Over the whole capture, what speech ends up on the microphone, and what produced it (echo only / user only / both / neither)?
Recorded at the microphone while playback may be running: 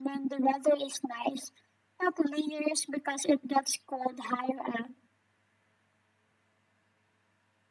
echo only